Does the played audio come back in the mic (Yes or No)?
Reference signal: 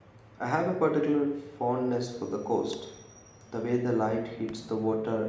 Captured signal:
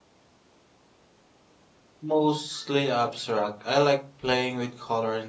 No